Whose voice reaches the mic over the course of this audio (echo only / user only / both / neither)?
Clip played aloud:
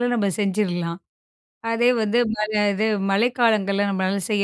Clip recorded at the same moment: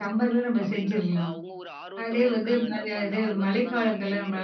both